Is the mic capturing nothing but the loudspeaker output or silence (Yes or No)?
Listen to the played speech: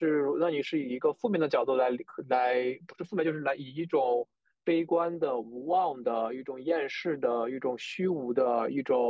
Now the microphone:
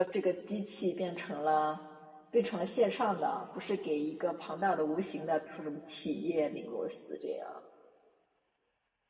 No